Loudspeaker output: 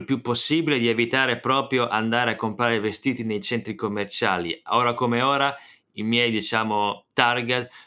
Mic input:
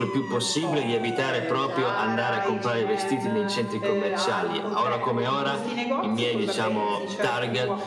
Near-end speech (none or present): present